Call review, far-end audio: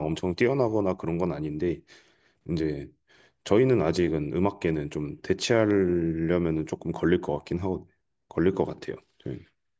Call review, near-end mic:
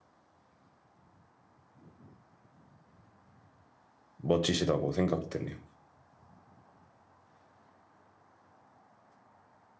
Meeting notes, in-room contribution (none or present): present